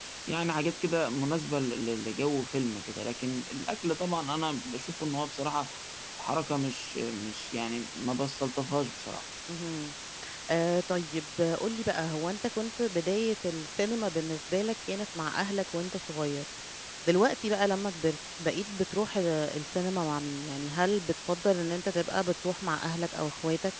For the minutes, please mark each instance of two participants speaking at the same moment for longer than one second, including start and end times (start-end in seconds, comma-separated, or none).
none